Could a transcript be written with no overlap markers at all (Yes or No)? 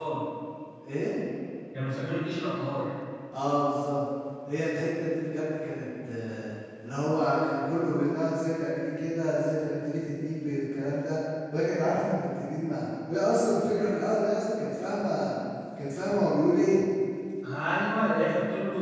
Yes